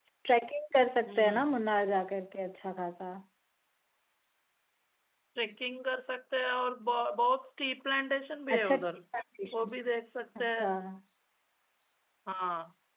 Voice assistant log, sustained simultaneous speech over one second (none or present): none